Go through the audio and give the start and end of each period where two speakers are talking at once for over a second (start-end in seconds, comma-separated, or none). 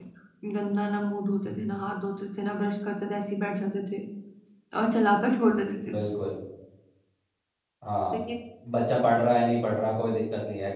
none